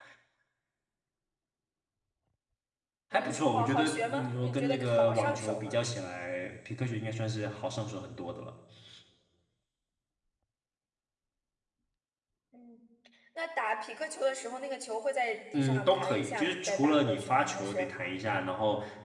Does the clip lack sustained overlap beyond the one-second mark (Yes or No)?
No